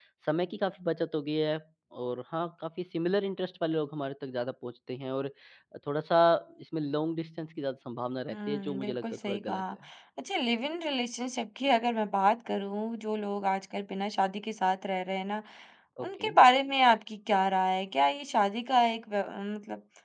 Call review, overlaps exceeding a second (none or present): present